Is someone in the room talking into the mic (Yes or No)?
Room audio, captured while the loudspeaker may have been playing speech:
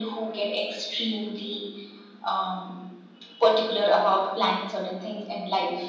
No